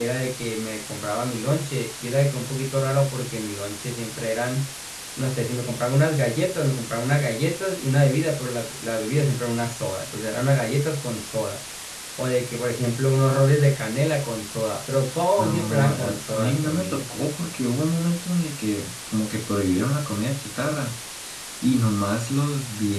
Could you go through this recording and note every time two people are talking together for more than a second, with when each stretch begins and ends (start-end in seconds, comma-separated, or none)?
15.4-17.1